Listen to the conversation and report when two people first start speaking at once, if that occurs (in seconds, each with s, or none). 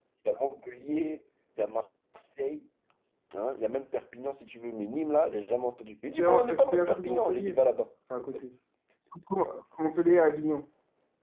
6.1 s